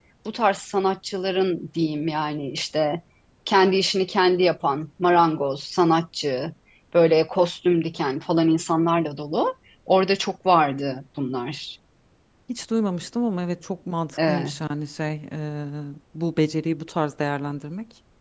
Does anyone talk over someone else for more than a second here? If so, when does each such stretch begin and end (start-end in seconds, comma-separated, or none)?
none